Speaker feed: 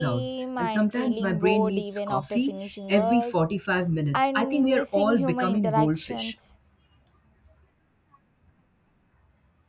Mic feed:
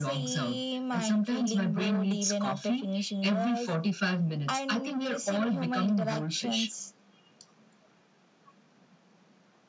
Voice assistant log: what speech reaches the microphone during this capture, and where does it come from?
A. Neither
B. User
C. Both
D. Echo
D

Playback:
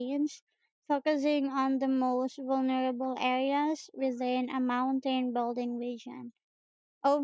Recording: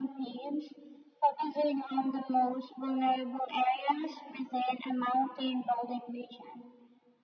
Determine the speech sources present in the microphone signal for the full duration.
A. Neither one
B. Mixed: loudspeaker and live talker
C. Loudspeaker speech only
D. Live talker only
C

